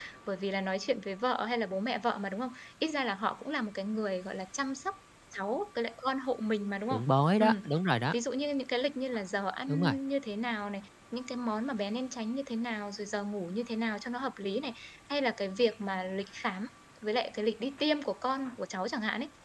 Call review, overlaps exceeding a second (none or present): none